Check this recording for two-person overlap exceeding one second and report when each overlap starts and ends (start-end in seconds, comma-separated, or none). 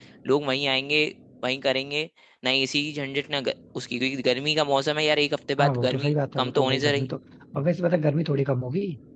5.6-7.1